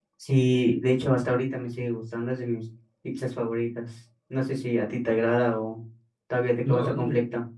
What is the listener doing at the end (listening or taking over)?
taking over